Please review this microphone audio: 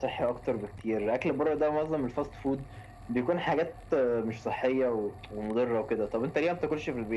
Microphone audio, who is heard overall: echo only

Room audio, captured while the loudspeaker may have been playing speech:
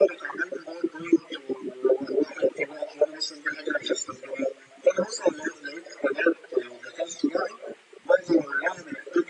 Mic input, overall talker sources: echo only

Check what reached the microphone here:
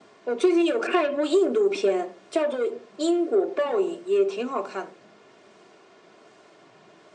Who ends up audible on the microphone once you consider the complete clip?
echo only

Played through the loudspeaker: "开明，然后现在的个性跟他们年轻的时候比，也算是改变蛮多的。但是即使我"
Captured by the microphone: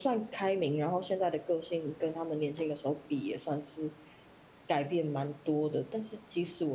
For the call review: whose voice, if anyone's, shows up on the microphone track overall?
echo only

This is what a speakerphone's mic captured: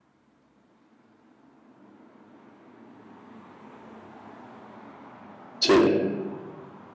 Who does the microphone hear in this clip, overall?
user only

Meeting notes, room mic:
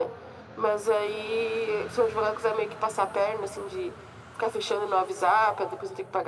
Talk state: echo only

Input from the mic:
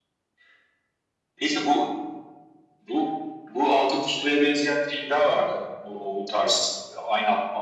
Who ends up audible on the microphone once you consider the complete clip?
echo only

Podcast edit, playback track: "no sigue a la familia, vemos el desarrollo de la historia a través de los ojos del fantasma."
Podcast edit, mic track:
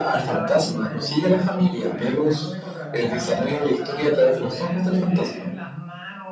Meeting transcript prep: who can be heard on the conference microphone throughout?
both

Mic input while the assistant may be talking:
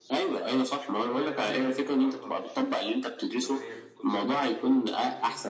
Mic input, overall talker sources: both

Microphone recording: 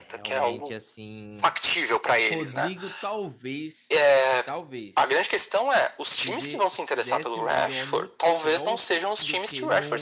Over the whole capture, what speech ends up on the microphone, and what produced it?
both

